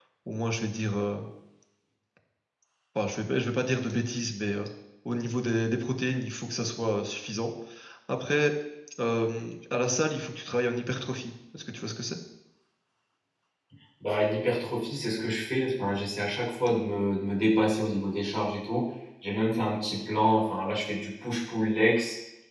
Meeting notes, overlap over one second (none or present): none